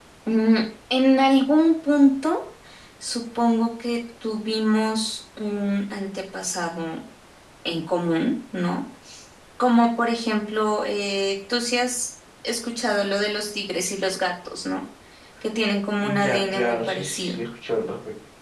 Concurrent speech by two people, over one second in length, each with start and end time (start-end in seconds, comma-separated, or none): 16.0-17.4